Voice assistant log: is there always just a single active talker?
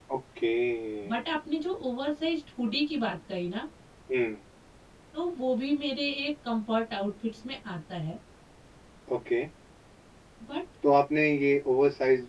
Yes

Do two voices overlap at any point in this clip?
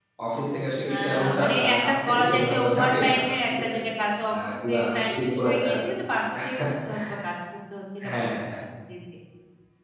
Yes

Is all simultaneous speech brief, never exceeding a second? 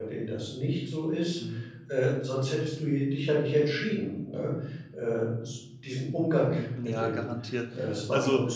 Yes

